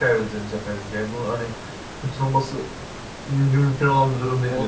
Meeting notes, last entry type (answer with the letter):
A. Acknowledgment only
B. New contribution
B